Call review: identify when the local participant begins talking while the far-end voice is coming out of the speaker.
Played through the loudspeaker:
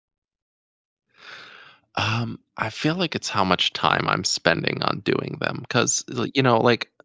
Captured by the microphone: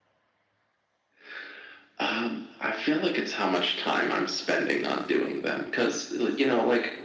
none

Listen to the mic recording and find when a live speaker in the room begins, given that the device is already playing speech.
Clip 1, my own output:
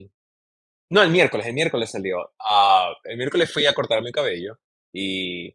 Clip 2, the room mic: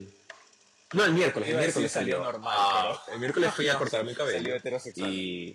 1.4 s

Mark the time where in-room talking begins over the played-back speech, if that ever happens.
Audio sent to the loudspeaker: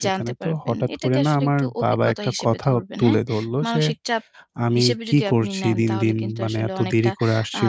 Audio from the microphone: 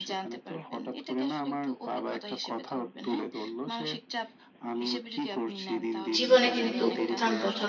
6.2 s

